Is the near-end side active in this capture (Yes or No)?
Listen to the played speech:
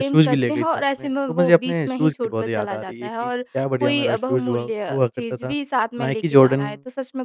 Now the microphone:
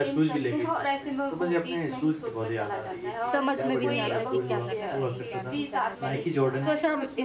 Yes